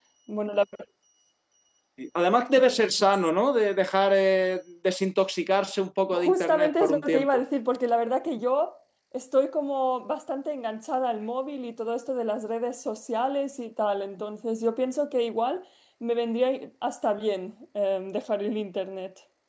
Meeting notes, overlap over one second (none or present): present